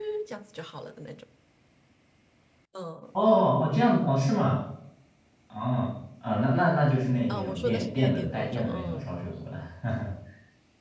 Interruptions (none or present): present